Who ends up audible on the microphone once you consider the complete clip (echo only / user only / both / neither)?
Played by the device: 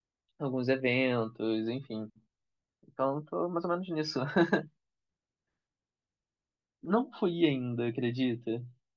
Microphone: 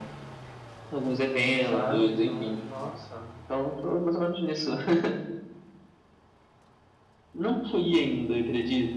both